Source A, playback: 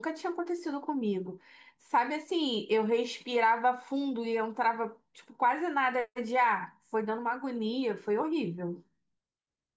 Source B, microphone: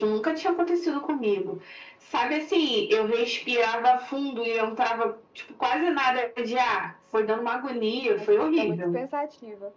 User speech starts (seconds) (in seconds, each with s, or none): 8.2 s